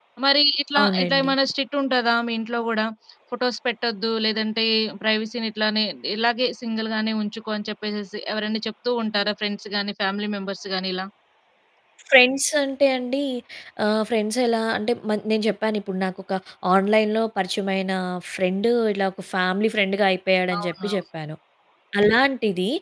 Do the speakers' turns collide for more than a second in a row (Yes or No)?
No